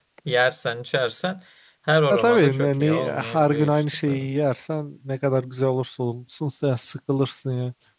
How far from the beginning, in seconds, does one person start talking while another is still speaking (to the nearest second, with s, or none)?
2 s